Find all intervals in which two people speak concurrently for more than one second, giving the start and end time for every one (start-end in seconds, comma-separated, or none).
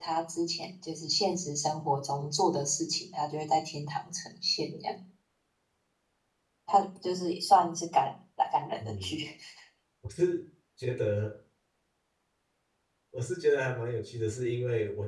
none